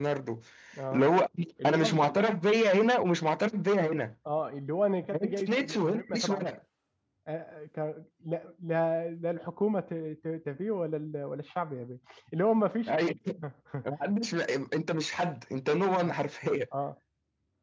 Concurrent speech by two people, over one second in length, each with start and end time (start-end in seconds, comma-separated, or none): 5.1-6.5